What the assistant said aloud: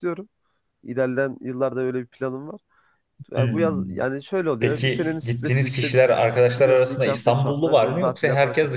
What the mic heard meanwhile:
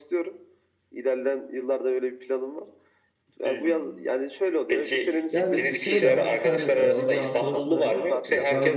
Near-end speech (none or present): present